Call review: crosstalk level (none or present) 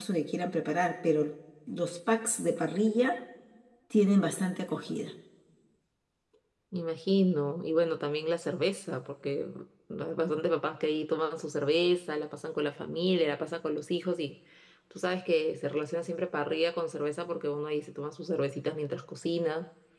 none